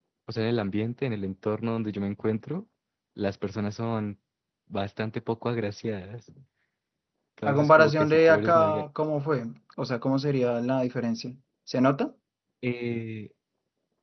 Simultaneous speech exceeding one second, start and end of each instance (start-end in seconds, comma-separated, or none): 7.5-8.8